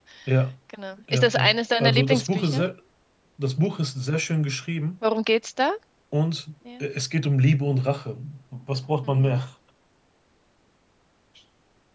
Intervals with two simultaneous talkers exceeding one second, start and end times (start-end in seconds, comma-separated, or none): 1.1-2.6